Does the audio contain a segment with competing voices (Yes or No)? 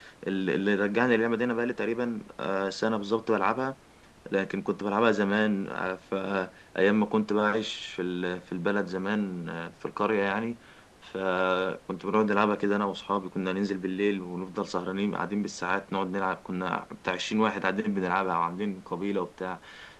No